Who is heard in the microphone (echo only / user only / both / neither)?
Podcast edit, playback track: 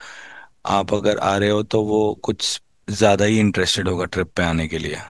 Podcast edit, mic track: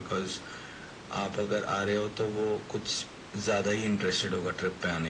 echo only